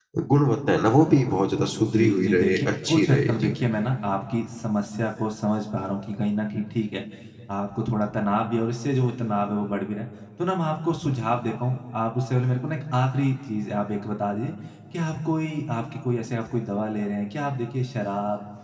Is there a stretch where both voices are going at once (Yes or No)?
Yes